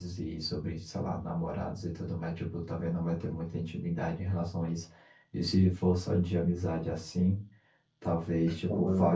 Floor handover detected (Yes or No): No